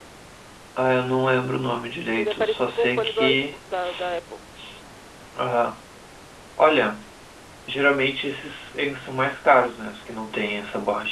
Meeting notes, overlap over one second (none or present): present